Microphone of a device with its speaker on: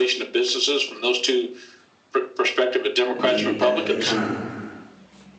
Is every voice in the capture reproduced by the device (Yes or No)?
No